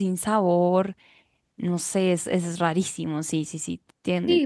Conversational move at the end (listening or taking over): taking over